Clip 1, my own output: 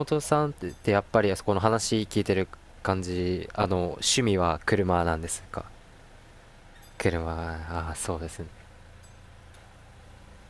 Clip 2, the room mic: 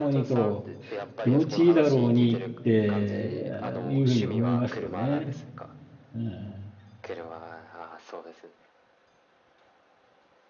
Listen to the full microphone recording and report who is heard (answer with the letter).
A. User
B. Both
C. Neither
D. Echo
B